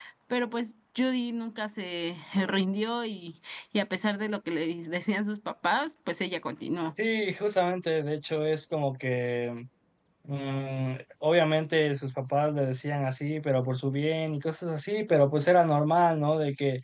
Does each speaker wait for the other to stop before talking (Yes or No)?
Yes